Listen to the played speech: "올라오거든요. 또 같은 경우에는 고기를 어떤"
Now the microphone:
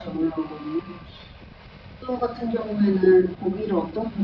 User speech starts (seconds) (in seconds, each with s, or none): none